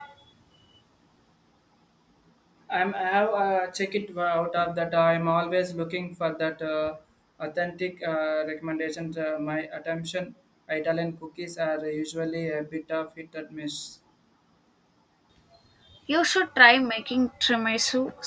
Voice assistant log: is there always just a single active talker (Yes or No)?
Yes